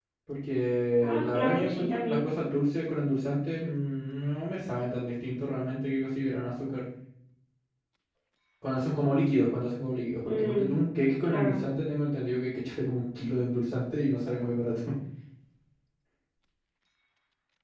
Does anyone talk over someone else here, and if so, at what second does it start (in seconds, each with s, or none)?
1.0 s